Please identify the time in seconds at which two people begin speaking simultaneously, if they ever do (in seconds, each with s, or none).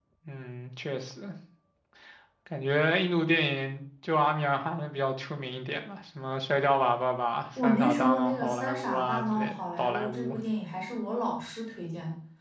7.6 s